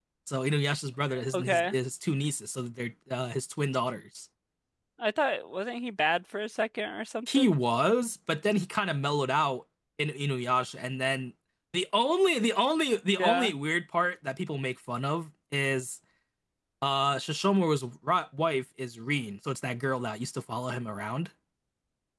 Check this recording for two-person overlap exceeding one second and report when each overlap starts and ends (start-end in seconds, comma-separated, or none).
none